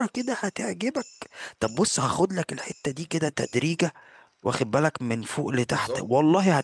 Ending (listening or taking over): listening